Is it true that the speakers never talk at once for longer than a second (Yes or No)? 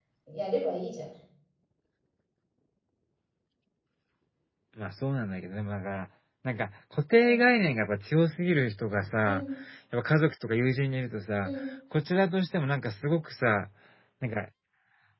Yes